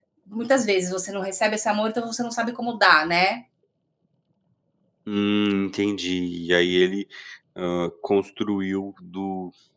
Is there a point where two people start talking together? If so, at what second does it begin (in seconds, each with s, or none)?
none